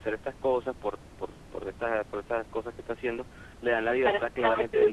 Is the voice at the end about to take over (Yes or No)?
Yes